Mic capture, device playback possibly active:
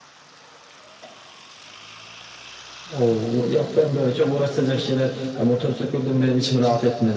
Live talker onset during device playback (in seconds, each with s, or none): none